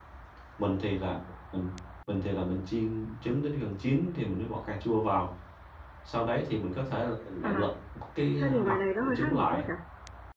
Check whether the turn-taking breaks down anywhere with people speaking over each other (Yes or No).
Yes